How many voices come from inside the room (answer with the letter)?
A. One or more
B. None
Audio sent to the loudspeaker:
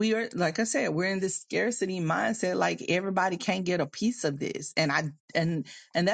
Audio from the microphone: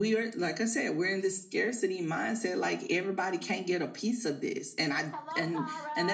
A